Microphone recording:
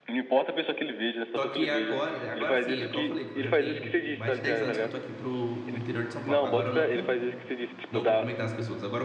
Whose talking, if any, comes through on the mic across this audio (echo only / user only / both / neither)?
both